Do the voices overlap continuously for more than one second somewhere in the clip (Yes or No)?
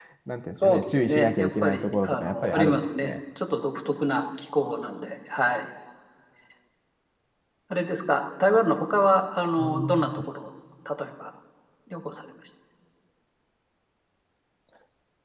Yes